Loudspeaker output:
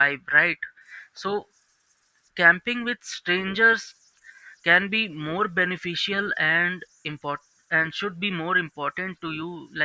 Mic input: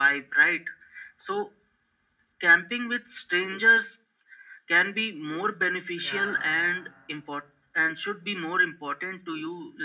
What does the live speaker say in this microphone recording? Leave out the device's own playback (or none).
yeah